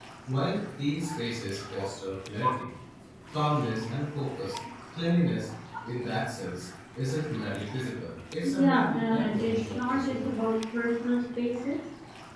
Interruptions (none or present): present